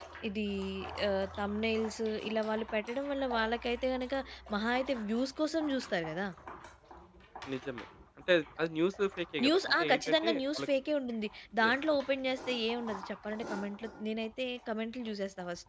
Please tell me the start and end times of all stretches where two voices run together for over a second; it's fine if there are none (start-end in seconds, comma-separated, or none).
9.4-10.7